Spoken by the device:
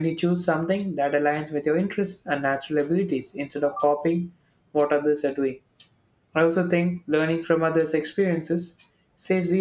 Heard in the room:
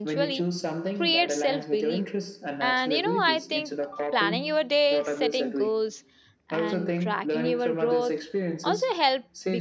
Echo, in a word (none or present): present